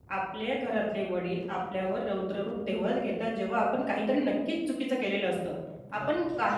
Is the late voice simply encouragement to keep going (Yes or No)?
Yes